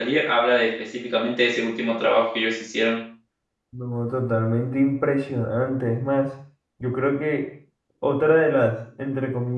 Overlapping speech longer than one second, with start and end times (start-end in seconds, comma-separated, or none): none